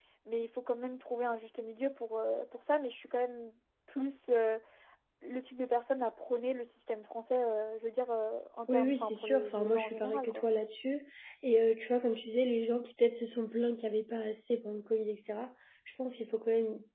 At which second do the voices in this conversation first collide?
8.7 s

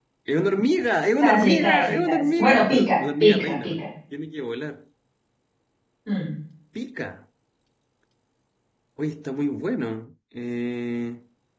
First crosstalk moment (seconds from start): 1.2 s

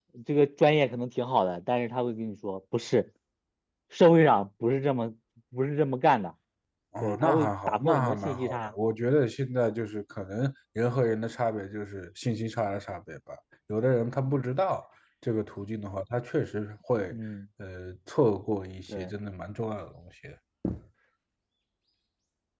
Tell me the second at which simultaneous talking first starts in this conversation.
7.0 s

